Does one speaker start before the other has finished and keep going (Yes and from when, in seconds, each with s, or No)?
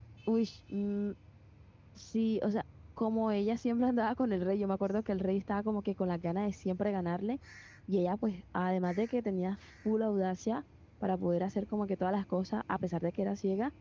No